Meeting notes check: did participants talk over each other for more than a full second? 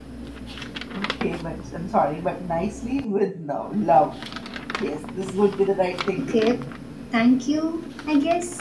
No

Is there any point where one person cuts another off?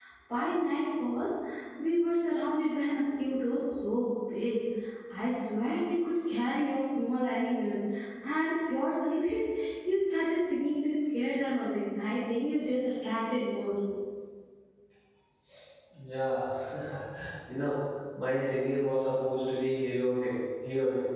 No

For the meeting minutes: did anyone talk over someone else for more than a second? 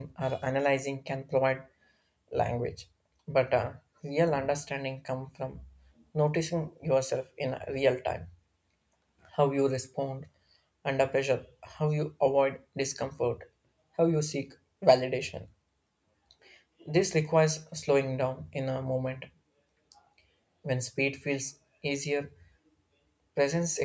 No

